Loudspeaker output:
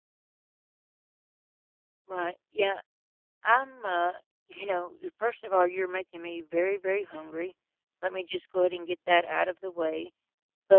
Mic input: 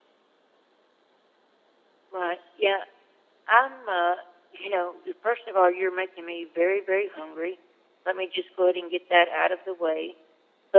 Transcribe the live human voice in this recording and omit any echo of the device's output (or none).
none